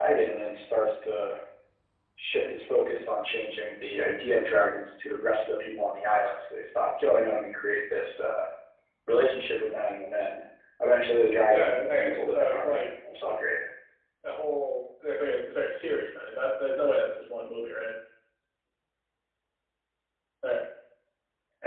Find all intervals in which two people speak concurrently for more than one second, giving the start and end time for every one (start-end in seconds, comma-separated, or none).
11.5-12.9